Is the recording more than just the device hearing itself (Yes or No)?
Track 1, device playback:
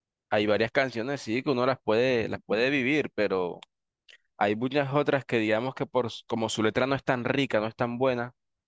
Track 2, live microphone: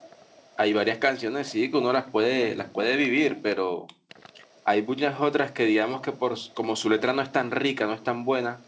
No